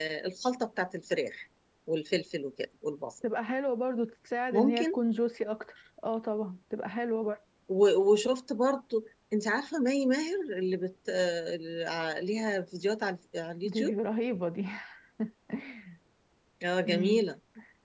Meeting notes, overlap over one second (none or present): none